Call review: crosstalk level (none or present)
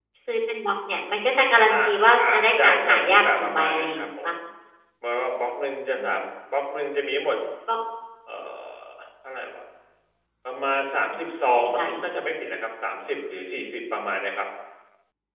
present